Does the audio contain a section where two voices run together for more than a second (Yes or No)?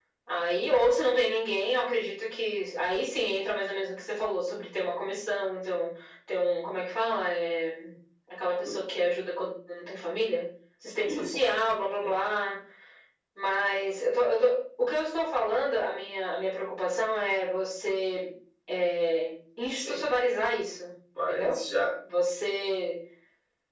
No